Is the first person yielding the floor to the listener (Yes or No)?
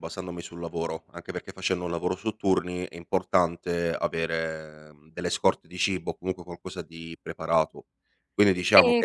No